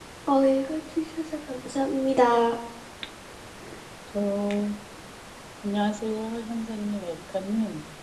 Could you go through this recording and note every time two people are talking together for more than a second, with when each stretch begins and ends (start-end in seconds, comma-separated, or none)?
none